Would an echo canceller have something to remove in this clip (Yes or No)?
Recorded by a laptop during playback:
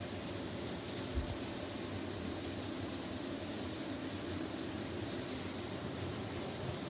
No